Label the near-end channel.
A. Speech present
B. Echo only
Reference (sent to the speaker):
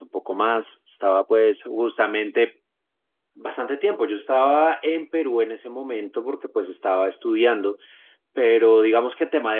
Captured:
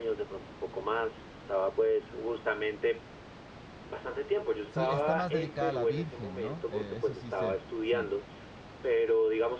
A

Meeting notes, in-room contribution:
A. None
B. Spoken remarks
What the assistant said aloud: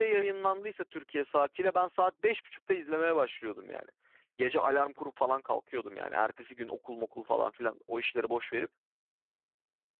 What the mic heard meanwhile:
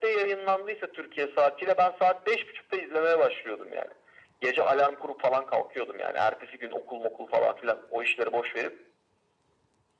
A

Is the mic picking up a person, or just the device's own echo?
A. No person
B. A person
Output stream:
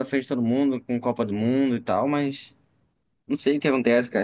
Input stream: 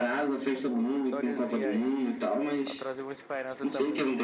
B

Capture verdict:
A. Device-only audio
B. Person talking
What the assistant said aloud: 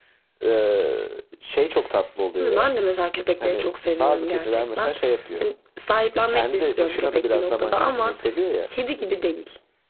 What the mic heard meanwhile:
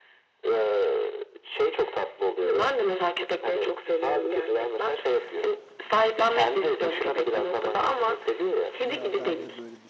B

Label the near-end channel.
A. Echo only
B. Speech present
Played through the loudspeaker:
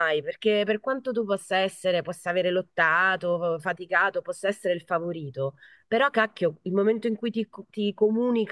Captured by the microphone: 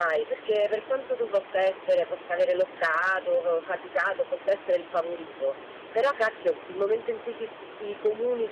A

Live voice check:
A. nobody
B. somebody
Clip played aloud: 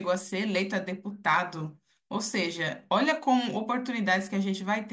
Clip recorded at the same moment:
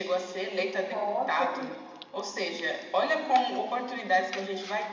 B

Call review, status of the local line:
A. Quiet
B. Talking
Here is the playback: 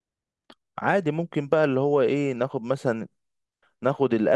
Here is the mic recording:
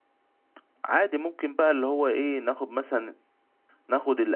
A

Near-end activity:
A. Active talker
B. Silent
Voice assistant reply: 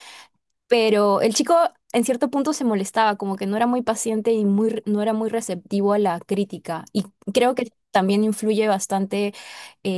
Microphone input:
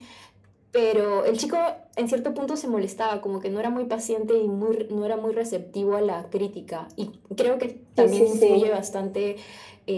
A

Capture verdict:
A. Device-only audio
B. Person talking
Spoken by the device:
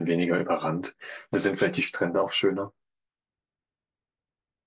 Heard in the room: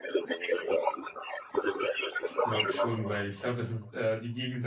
B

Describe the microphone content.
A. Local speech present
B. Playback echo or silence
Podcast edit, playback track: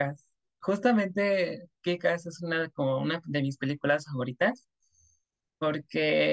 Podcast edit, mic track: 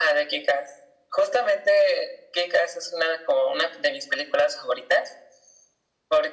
B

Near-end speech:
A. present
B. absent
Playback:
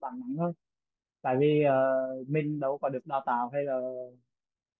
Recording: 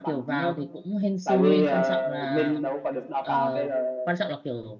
A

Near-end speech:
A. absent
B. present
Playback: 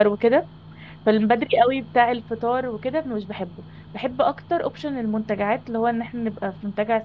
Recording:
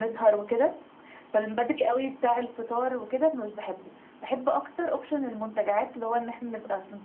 A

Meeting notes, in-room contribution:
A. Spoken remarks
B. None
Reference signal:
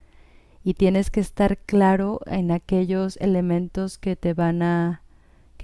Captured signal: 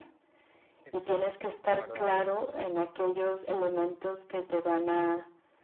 A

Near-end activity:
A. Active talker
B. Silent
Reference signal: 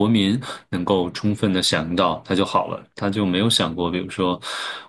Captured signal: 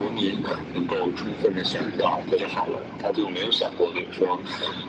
B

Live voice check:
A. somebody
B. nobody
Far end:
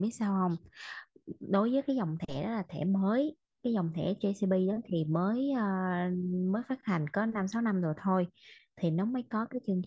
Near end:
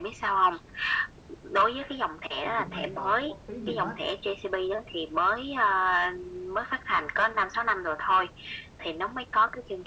A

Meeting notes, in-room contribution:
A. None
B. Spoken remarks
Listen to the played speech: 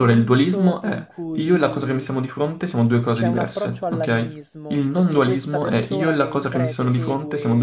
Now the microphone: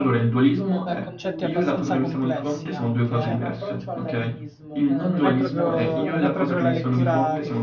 B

